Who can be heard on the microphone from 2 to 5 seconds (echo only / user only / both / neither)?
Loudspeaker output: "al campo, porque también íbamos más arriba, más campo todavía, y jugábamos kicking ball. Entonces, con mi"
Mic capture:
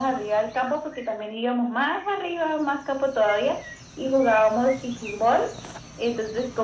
echo only